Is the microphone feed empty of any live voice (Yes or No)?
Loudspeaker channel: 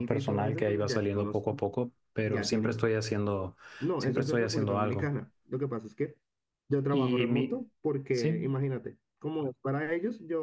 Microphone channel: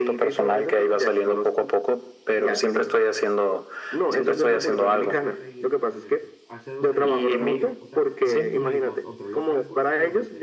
No